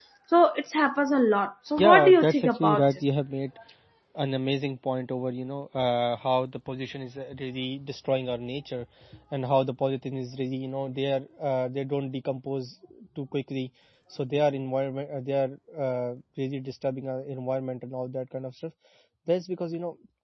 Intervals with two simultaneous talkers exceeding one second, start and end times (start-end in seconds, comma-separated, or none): 1.8-3.0